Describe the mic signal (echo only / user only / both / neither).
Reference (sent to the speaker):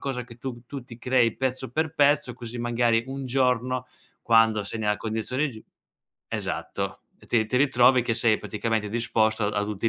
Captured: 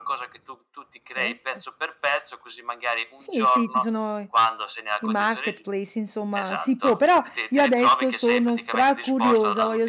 both